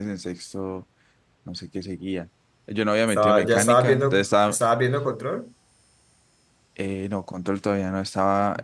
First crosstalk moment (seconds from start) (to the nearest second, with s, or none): 3 s